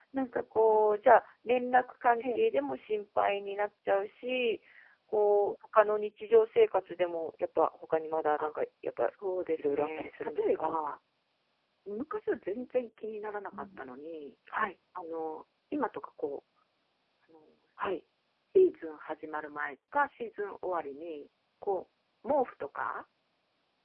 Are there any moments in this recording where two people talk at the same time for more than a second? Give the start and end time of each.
9.6-10.8

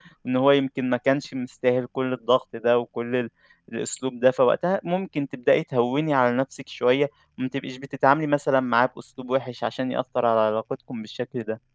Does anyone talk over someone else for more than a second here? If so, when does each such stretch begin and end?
none

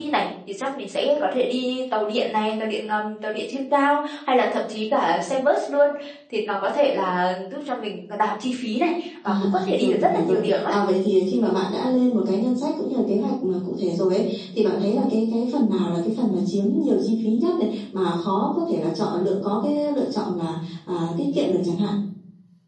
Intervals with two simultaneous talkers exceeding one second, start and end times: 9.2-10.7

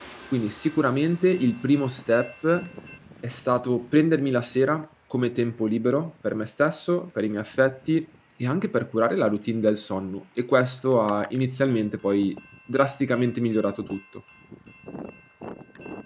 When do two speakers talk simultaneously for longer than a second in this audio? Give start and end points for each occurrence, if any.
none

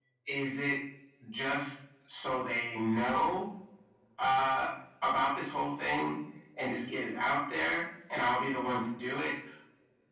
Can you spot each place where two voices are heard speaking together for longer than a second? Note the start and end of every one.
none

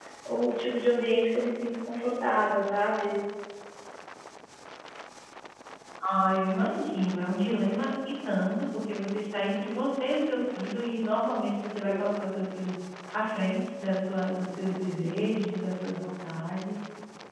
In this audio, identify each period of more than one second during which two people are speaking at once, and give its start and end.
none

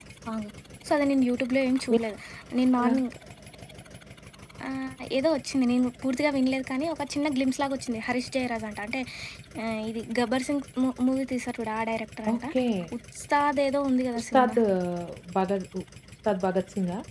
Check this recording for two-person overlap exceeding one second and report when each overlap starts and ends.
none

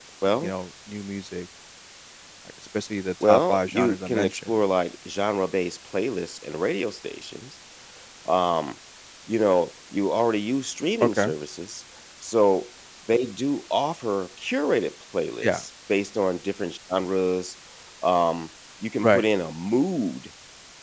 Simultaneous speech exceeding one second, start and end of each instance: 3.2-4.5

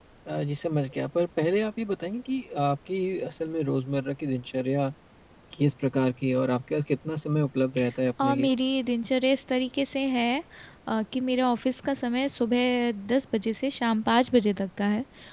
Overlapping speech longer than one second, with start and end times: none

